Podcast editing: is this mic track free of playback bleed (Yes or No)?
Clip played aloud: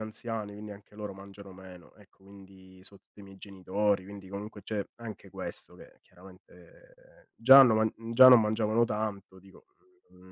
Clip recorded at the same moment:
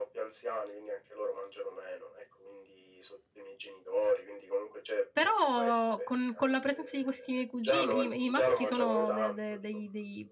No